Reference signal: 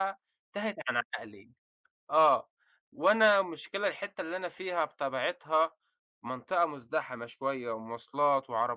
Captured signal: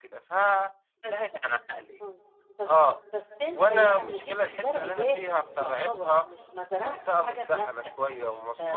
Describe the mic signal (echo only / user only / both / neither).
both